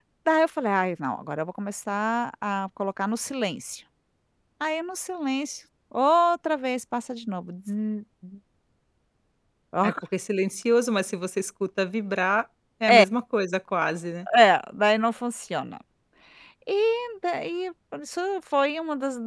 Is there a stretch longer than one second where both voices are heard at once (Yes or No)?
No